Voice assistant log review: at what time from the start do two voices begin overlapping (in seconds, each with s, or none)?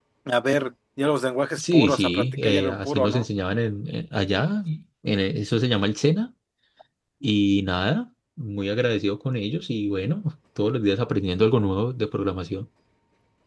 1.6 s